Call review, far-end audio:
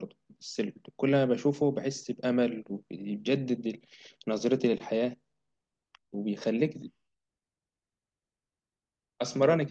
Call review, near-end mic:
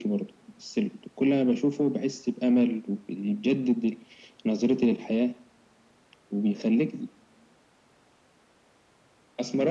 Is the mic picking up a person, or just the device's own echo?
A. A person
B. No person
B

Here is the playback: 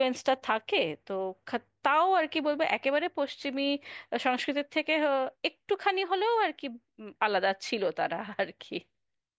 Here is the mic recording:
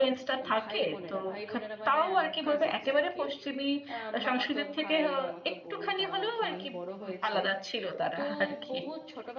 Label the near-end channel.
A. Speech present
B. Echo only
A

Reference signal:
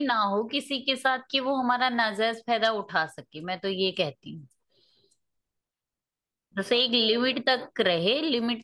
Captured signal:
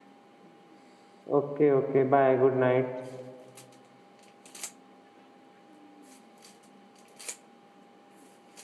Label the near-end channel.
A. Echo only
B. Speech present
B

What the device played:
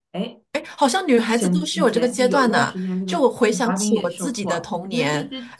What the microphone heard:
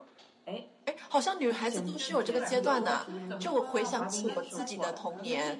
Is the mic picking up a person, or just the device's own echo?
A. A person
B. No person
A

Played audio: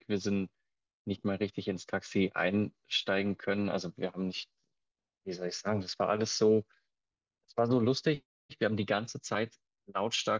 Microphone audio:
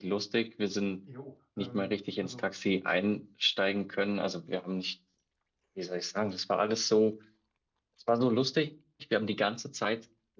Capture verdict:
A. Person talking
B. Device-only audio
A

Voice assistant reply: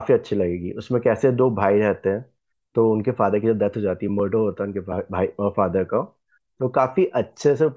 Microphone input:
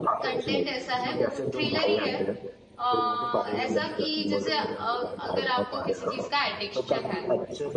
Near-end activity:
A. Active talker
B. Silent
A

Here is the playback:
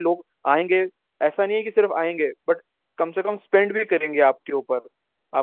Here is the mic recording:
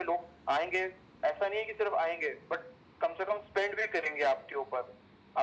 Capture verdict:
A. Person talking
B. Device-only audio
B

